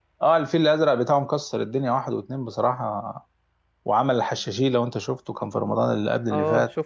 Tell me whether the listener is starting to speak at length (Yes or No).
Yes